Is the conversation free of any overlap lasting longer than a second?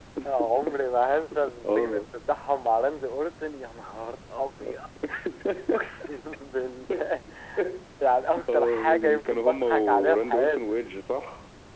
No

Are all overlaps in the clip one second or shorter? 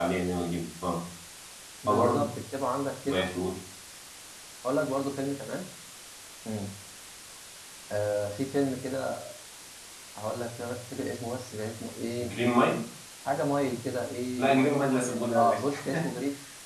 No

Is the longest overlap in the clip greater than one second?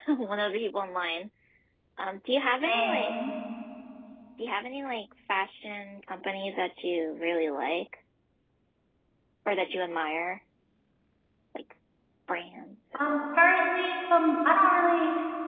No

